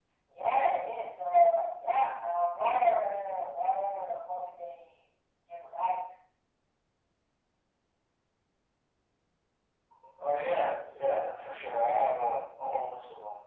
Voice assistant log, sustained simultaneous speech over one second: none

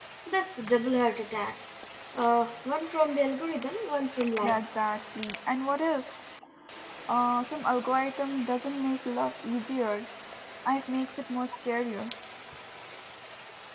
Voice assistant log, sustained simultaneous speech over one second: none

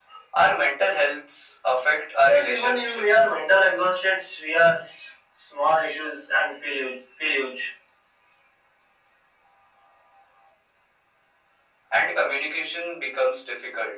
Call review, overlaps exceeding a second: present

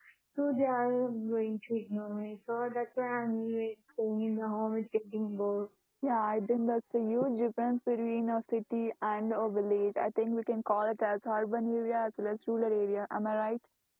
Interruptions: none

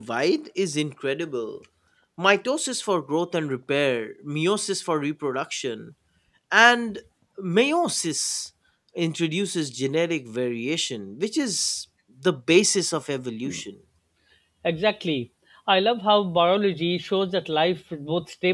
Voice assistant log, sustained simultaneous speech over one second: none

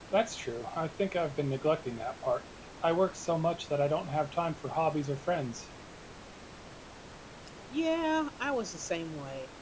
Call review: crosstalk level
none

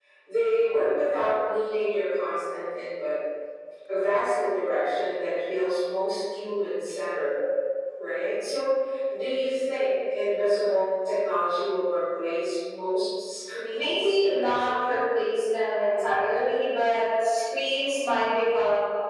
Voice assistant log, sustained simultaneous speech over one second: present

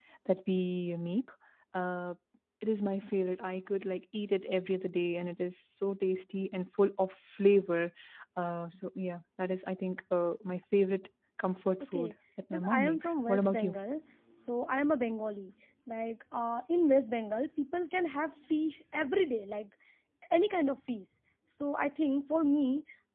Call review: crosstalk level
present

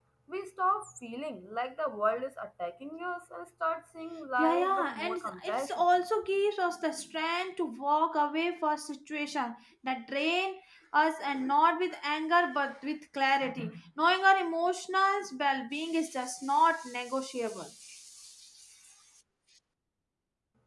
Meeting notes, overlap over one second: present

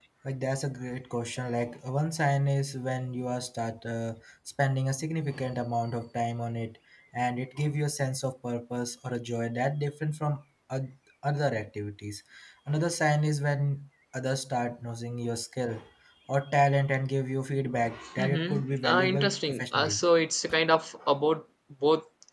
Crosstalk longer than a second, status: present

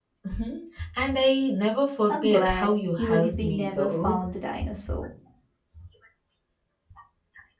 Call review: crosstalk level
present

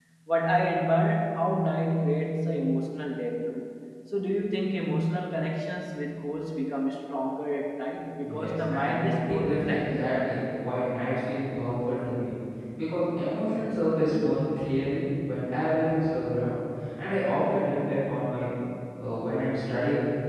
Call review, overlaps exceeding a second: present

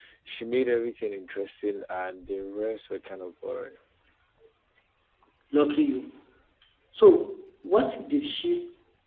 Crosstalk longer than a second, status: none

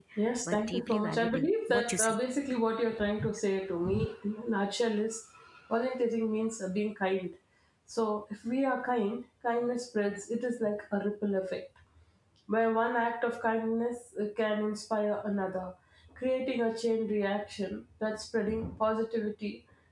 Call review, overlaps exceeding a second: present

